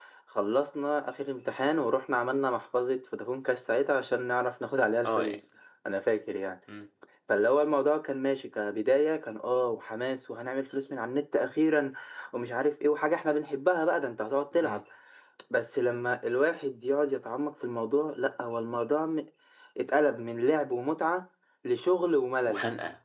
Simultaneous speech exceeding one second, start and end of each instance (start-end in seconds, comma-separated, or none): none